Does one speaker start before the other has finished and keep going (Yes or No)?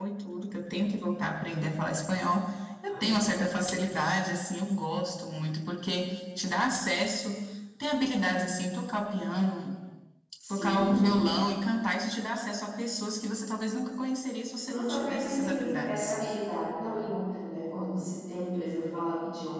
Yes